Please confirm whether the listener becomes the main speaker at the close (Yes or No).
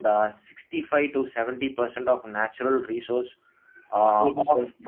No